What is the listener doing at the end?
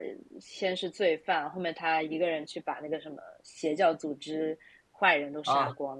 taking over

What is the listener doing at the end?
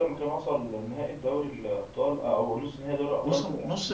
taking over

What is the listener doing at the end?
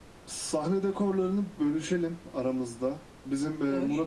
listening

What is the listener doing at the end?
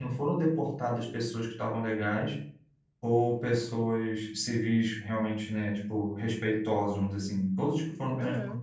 listening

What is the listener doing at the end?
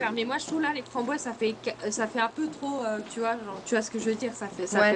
taking over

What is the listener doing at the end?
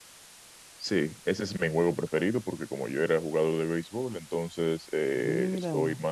listening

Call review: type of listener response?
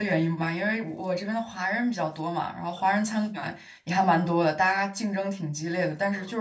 listening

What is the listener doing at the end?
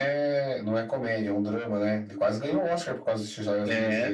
taking over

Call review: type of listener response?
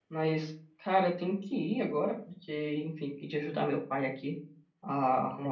listening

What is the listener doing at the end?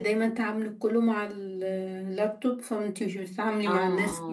taking over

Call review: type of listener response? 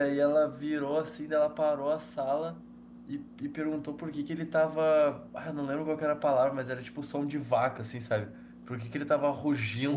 listening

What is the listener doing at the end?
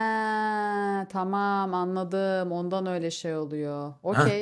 taking over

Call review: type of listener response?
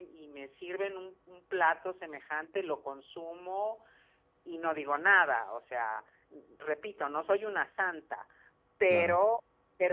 listening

